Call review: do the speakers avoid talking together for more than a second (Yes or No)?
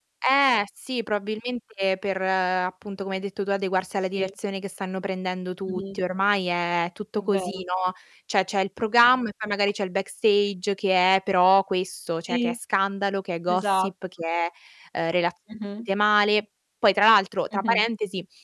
Yes